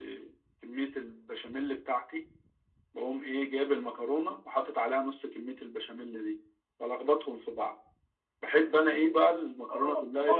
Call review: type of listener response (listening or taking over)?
taking over